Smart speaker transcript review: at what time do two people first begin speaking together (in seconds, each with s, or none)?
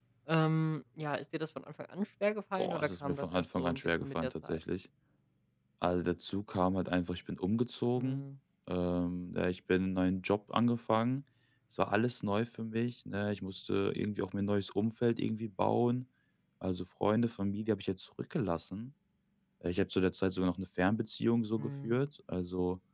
2.6 s